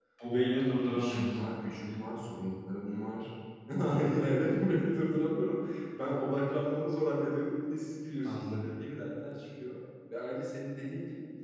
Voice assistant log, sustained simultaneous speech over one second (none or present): none